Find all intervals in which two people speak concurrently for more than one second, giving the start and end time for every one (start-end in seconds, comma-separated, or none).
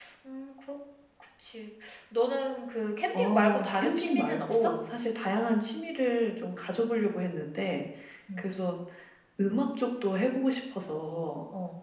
3.1-4.7